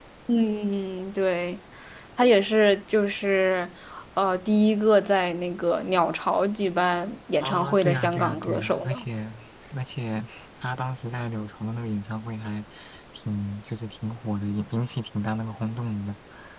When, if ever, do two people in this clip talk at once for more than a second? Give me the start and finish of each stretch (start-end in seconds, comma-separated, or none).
7.4-9.1